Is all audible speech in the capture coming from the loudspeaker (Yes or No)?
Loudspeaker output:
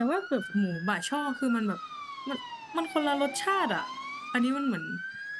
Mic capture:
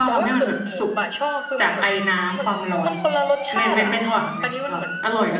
No